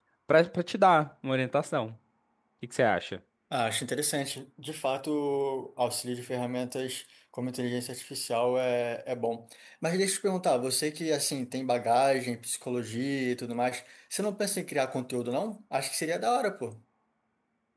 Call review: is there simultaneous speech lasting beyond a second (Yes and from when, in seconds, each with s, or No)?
No